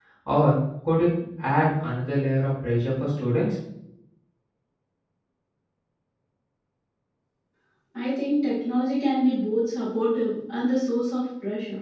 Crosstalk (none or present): none